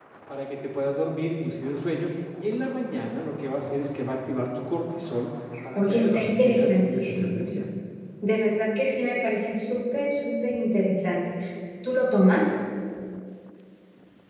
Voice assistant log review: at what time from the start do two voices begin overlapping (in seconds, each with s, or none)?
5.8 s